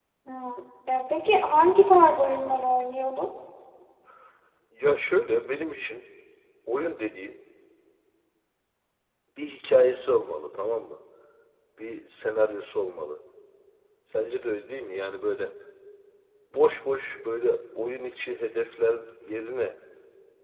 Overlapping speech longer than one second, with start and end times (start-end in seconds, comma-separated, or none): none